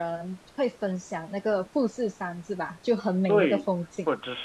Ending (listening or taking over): taking over